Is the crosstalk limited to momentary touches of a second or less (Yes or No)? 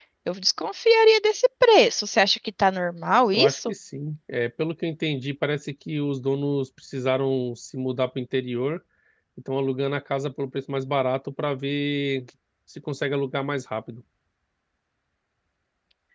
Yes